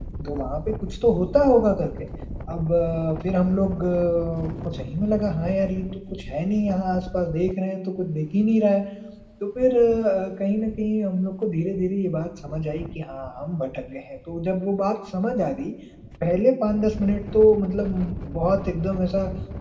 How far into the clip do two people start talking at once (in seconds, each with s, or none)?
none